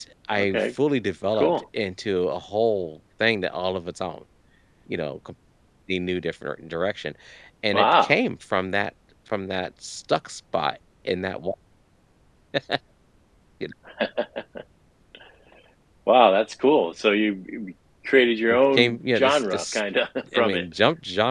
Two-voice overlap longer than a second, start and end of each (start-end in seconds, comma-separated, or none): 18.5-19.8